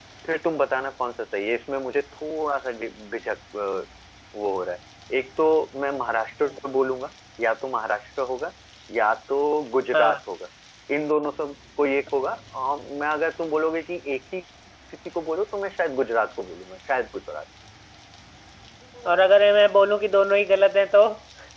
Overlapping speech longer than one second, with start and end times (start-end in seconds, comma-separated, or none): none